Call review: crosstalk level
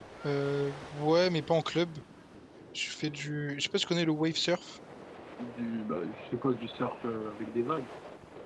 none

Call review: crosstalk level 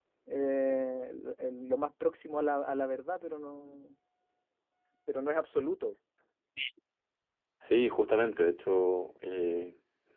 none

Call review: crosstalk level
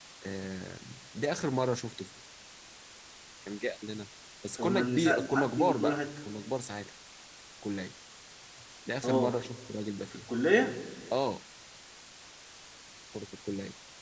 present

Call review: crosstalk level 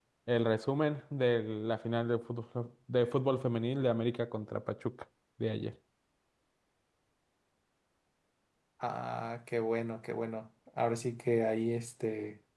none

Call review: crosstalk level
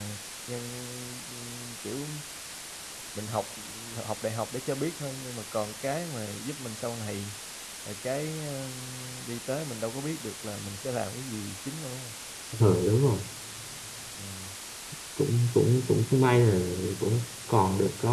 none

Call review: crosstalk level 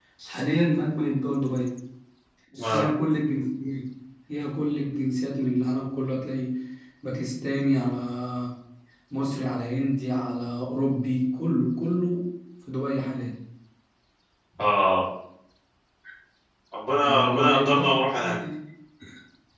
present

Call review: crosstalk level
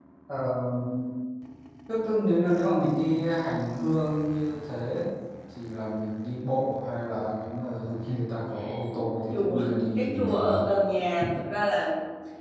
present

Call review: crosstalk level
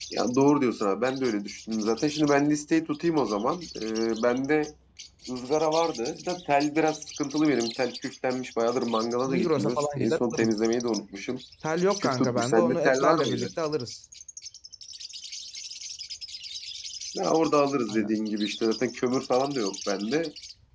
present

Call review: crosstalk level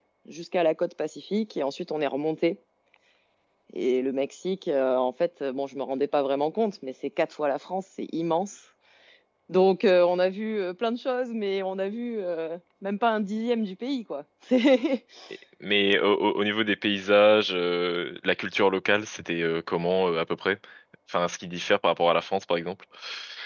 none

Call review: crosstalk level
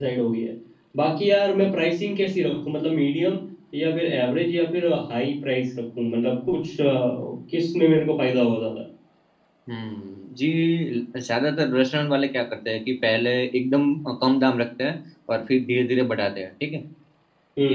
none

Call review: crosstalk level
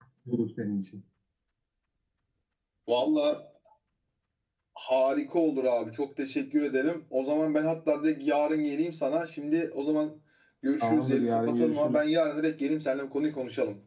present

